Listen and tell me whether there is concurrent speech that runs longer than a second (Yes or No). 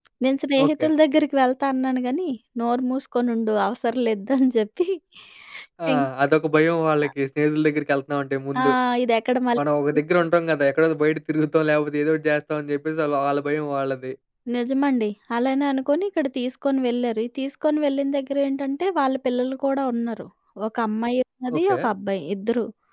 No